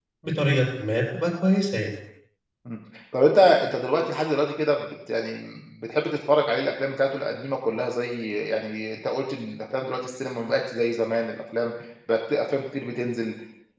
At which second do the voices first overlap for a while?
none

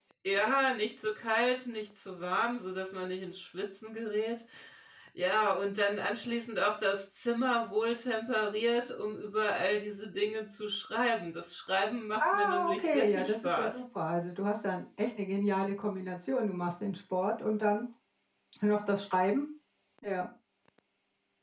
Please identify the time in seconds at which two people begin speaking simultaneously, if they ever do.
12.2 s

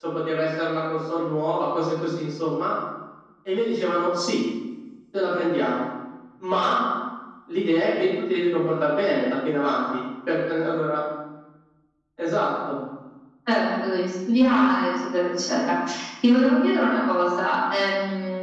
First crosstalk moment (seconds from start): none

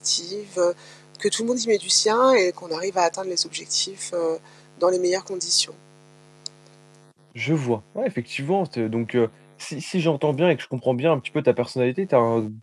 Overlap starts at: none

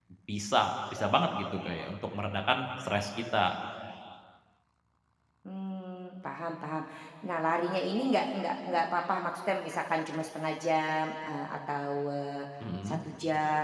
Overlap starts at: none

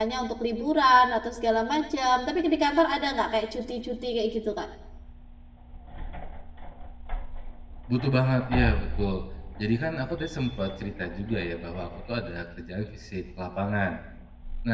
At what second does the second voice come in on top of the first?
none

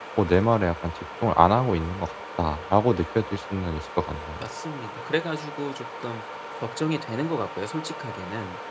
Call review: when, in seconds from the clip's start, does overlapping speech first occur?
none

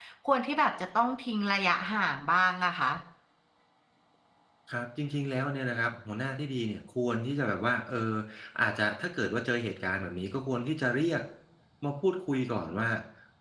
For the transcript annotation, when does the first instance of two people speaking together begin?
none

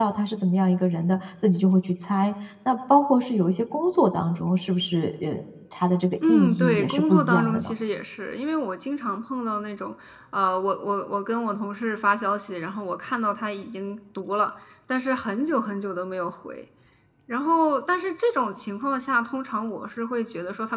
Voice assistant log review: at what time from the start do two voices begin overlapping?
6.2 s

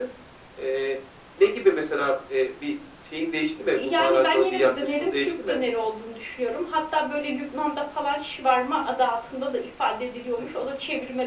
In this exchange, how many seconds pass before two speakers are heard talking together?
3.7 s

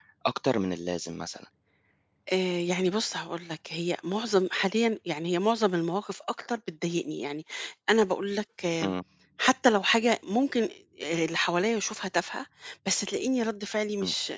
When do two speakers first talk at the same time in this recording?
none

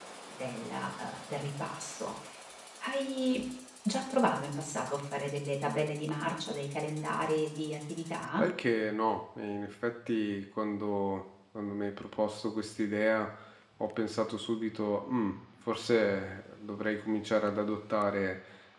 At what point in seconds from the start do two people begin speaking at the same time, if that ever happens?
none

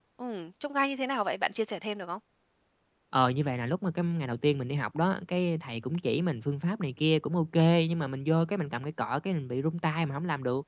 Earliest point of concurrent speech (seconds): none

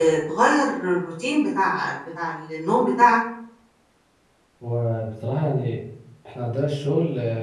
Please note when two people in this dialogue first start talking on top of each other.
none

